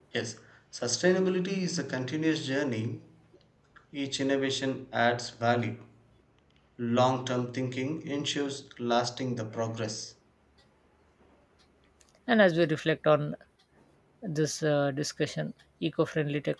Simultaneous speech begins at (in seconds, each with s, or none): none